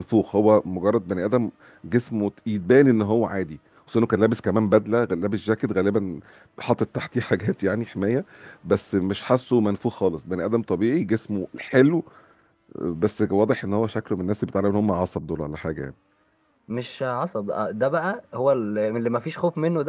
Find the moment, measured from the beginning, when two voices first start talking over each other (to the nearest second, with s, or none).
none